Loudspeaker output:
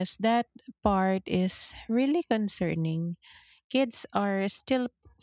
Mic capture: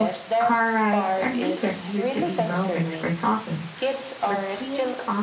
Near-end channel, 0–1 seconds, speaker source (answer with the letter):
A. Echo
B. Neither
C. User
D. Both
D